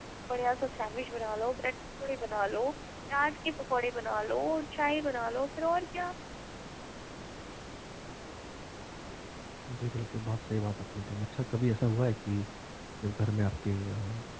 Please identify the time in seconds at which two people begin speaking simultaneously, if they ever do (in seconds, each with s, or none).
none